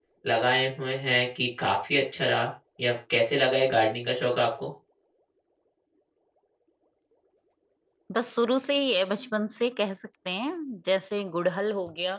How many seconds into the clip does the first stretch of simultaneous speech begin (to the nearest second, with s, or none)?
none